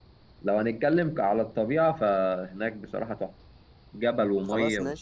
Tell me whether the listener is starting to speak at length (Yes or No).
No